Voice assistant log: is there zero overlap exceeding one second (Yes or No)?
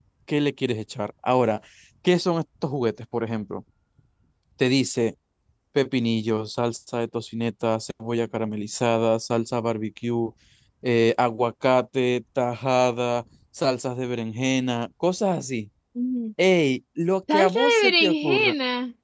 No